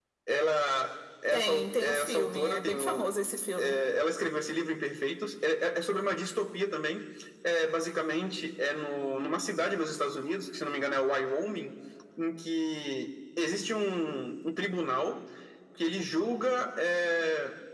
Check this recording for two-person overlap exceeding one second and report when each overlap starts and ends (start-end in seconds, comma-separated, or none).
1.3-3.1